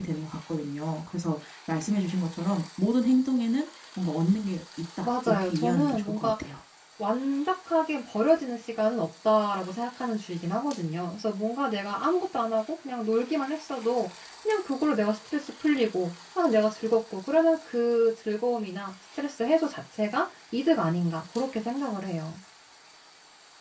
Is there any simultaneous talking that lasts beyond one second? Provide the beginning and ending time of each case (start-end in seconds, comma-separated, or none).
5.0-6.3